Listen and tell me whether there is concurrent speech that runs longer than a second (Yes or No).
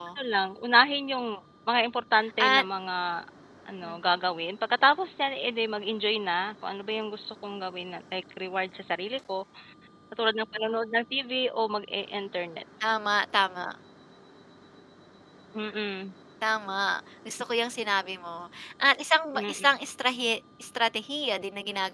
No